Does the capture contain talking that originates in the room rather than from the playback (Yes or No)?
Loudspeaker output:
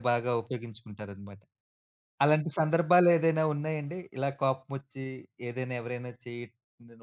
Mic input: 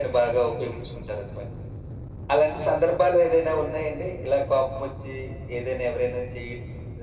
No